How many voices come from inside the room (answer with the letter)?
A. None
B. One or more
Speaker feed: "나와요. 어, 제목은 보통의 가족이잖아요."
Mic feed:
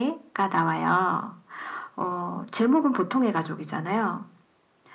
A